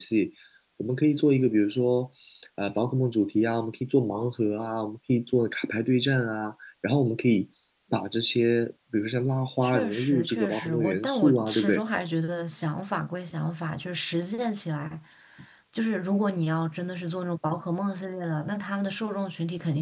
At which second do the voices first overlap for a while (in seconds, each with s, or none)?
9.6 s